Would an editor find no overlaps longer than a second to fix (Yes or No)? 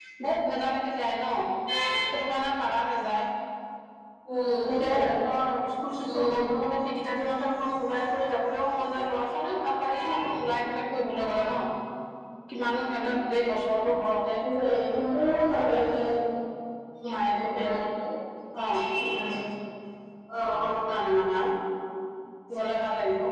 Yes